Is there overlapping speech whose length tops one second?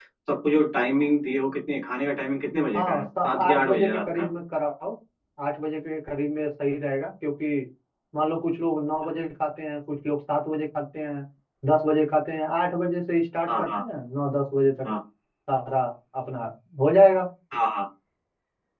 Yes, from 2.7 s

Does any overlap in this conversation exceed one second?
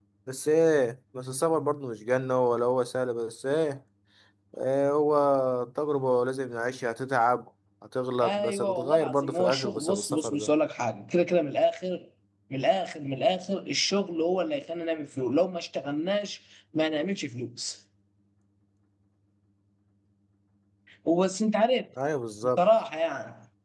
Yes, from 8.2 s

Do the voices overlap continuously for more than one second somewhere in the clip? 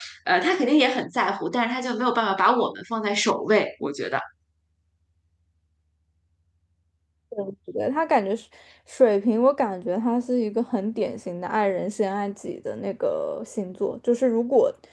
No

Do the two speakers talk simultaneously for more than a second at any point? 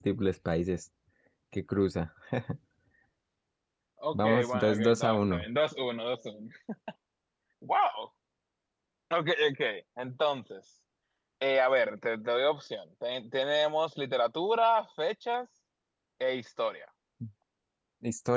Yes, from 4.1 s

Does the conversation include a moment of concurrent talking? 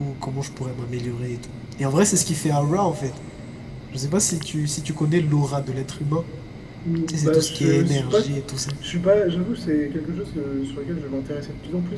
Yes, from 7.1 s

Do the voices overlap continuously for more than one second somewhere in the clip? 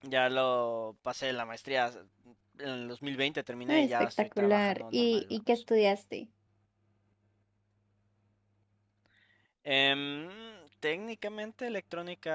Yes, from 3.7 s

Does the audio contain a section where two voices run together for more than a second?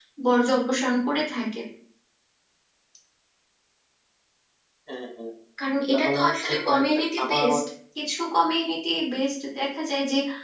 Yes, from 5.9 s

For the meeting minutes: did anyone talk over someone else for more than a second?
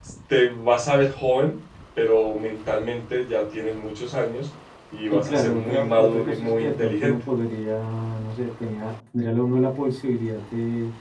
Yes, from 5.1 s

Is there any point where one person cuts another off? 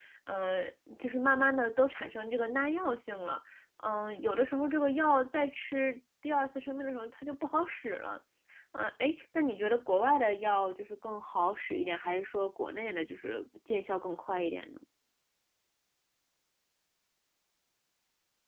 No

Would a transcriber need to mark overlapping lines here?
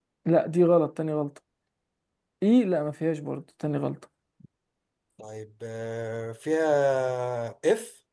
No

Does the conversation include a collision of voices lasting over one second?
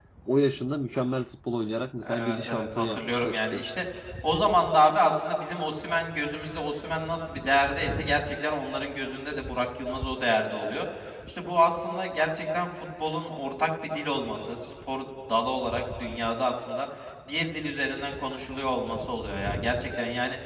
Yes, from 2.0 s

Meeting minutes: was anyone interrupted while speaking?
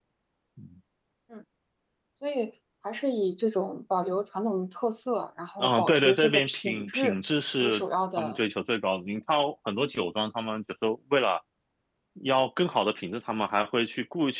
Yes, from 5.6 s

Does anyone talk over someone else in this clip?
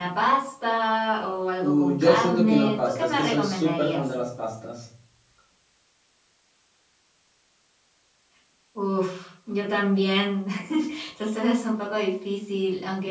Yes, from 1.6 s

